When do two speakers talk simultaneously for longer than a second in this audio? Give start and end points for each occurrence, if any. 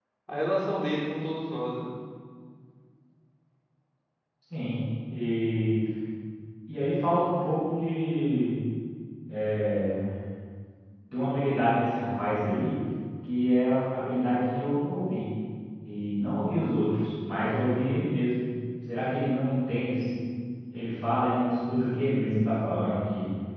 none

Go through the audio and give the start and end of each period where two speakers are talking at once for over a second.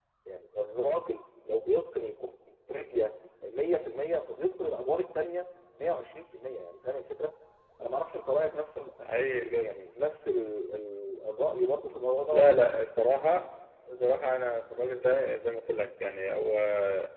none

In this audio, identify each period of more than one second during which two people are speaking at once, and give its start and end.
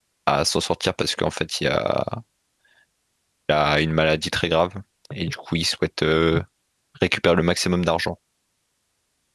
none

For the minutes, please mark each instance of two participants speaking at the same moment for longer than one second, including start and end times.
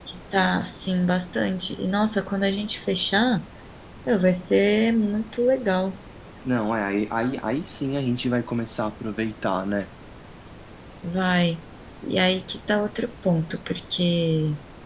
none

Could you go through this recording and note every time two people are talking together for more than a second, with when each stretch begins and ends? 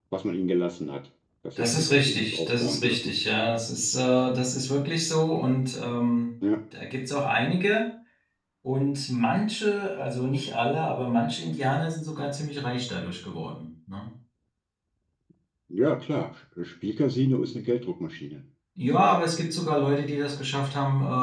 1.6-3.1

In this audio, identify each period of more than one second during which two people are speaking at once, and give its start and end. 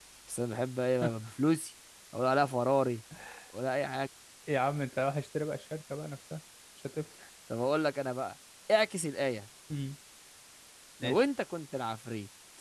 none

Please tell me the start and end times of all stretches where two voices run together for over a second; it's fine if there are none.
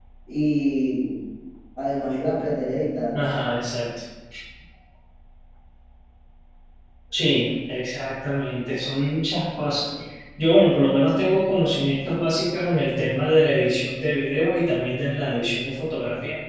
none

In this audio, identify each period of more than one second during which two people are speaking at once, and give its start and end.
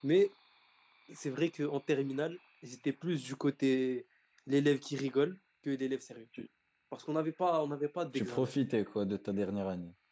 none

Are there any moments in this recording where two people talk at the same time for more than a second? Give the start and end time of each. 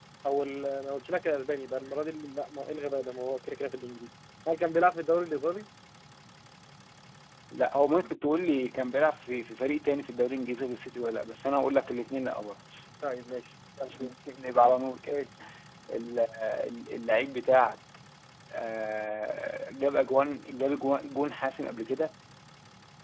none

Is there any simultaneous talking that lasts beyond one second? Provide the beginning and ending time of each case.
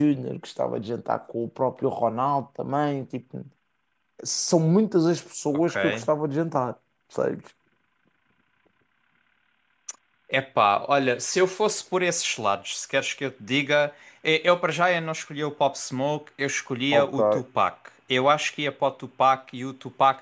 none

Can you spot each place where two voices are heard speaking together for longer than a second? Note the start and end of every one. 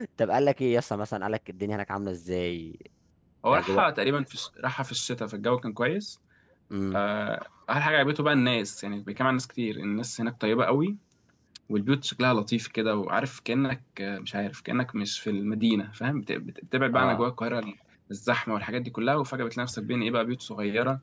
none

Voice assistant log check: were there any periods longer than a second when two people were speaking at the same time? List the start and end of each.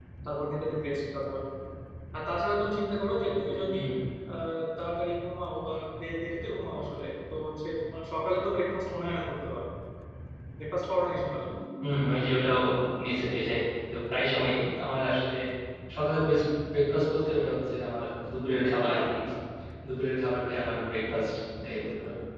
none

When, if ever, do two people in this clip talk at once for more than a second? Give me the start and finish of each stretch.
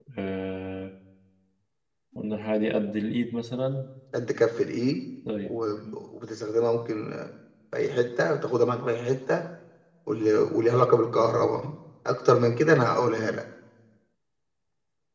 none

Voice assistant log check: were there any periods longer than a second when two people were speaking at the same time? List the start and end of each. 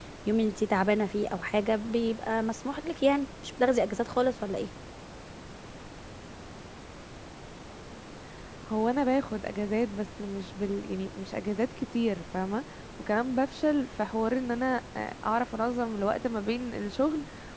none

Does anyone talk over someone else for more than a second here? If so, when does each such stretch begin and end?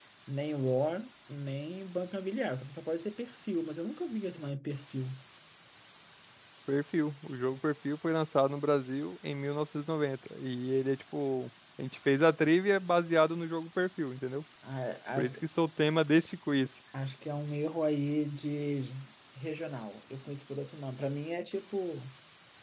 none

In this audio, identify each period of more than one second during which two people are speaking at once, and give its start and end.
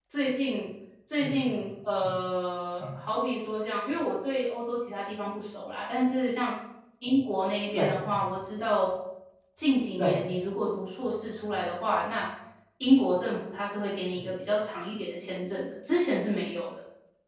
none

